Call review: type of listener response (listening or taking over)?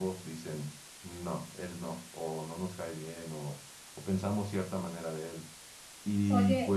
taking over